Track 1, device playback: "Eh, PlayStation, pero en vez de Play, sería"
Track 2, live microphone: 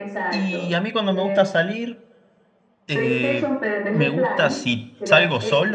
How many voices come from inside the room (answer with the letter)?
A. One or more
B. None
A